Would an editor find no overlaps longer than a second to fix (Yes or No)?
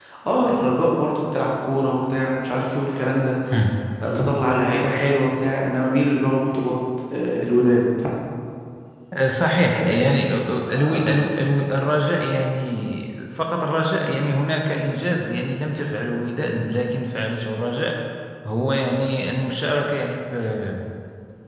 Yes